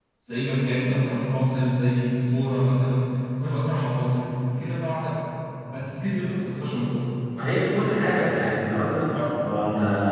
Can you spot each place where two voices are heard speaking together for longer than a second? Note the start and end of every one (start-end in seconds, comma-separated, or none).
none